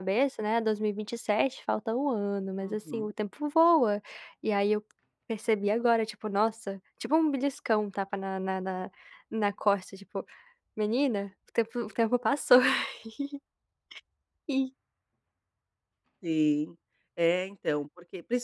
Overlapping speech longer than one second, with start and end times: none

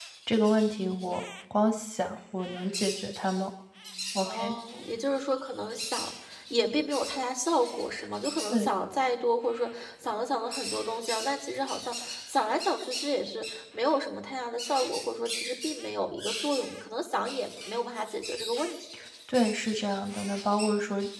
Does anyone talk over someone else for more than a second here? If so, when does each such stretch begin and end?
none

